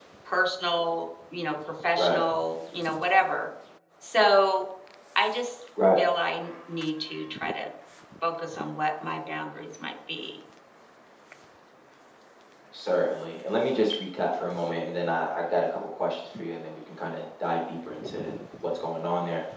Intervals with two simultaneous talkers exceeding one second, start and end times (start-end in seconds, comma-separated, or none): none